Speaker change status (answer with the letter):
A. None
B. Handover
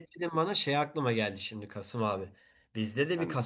A